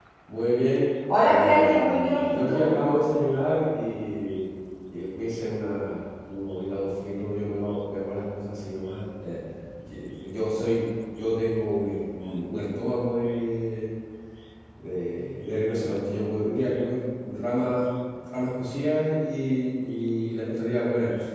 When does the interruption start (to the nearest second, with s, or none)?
1 s